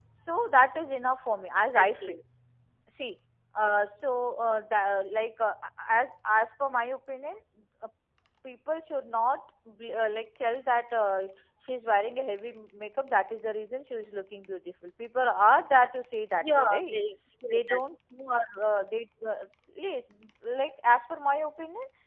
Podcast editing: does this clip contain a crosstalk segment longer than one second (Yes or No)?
No